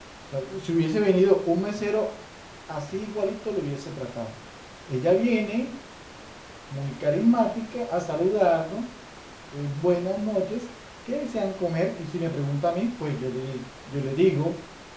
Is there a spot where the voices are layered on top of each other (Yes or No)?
No